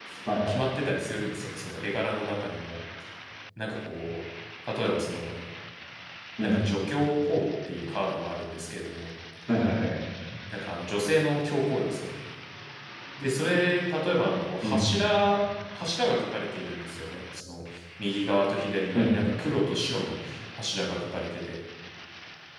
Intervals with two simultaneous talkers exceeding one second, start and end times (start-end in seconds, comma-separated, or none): none